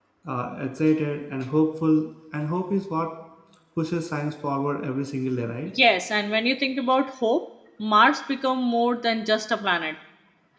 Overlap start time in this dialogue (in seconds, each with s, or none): none